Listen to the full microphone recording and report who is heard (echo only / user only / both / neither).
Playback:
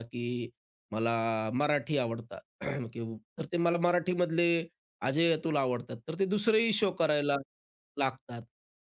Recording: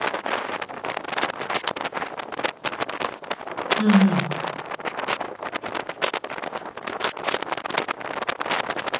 user only